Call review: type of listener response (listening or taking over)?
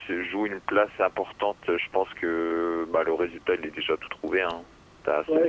taking over